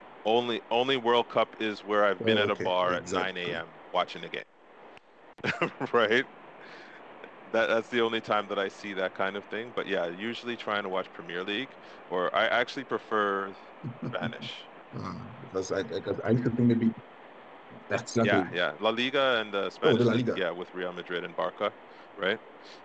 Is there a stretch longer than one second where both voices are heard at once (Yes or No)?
Yes